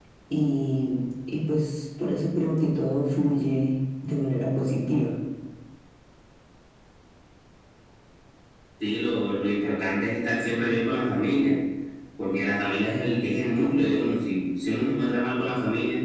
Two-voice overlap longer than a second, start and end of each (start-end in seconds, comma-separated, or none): none